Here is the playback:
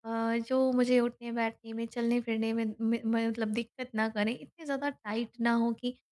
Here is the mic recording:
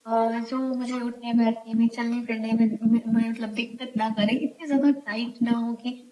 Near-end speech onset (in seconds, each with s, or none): none